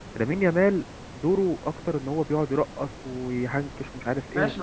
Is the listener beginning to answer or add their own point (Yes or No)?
Yes